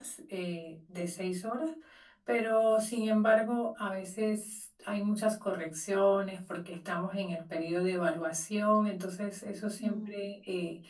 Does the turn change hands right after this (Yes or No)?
No